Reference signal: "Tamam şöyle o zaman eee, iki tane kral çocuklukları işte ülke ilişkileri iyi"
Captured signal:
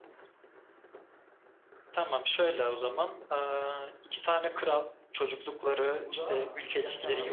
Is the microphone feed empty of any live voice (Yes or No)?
No